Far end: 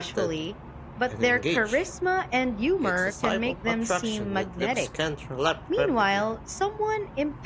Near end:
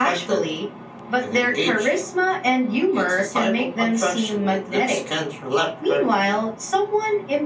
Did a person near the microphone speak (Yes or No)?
No